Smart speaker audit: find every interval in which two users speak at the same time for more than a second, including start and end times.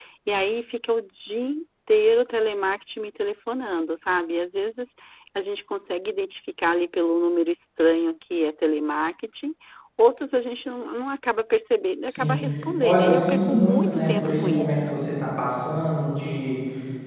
12.8-14.9

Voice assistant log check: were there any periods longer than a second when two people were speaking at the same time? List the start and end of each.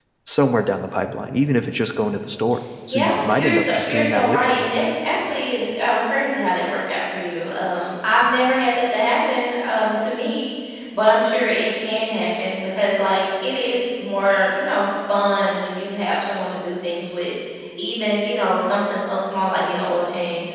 2.9-4.5

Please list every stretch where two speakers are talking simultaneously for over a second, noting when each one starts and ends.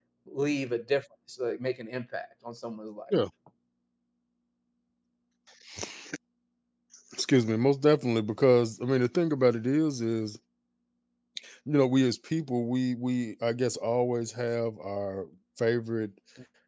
none

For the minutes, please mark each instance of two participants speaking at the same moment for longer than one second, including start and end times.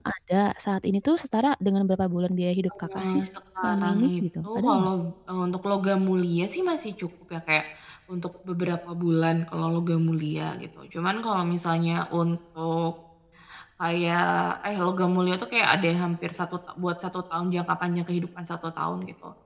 3.6-4.9

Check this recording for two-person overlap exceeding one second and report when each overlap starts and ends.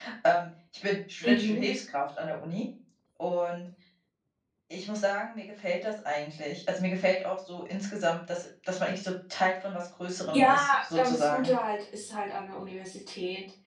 10.3-11.5

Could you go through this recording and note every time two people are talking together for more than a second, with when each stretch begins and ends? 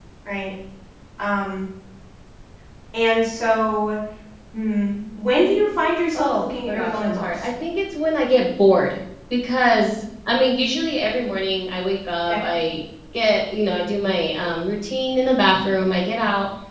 6.1-7.5

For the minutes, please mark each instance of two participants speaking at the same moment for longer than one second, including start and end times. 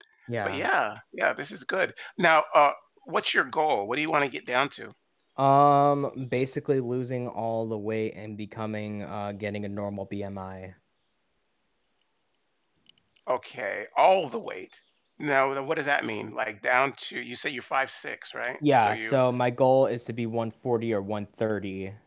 none

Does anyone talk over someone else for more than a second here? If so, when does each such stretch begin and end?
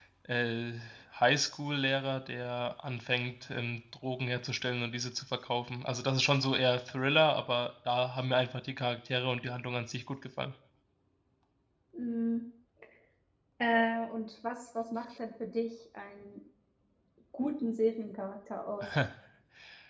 none

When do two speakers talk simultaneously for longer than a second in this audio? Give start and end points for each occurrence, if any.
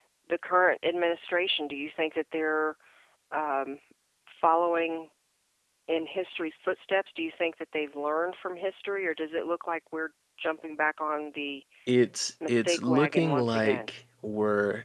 12.5-13.8

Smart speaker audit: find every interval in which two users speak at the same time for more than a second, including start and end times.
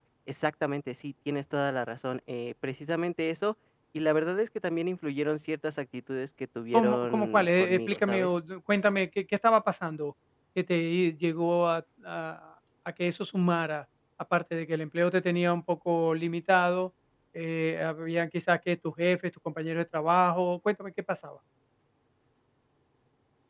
6.7-8.3

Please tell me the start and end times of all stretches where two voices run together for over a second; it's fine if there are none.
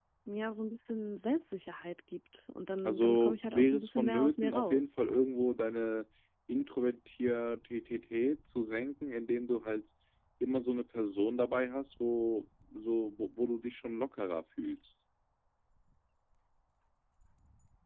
2.9-4.9

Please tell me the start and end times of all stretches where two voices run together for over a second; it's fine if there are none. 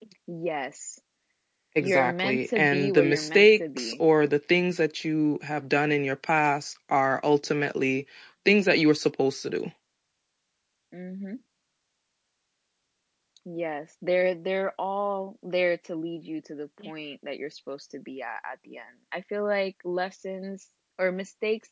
1.8-3.9

